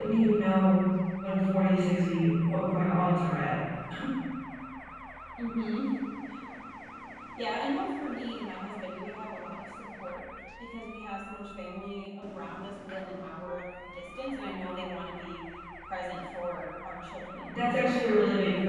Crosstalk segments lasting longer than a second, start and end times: none

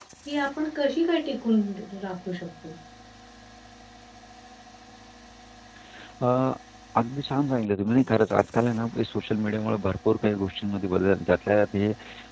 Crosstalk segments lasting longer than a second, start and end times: none

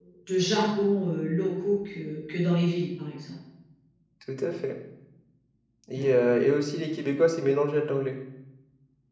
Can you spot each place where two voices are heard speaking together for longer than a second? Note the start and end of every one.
none

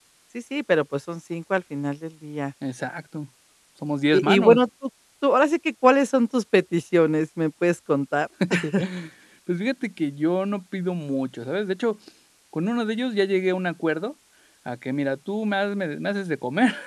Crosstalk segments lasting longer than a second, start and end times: none

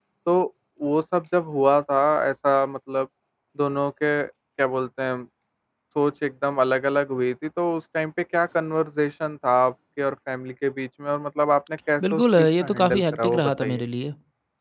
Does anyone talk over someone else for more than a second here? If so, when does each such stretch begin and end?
12.0-13.8

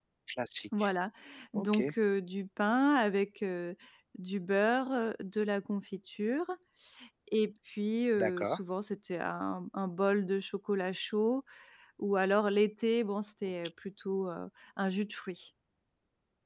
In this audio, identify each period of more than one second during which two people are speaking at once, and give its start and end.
none

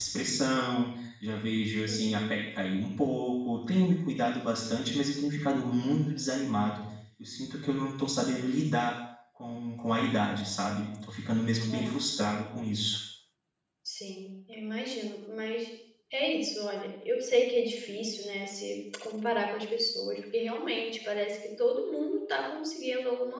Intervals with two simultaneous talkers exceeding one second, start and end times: none

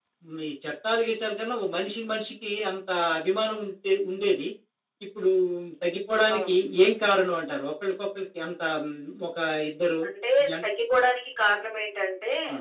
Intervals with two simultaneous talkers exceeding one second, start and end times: none

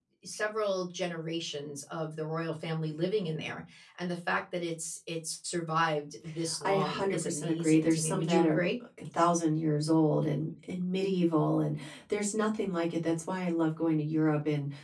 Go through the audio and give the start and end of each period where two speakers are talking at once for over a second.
6.6-8.7

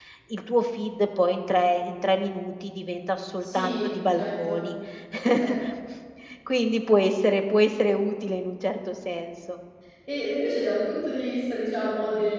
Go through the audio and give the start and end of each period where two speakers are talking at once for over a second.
3.4-4.6

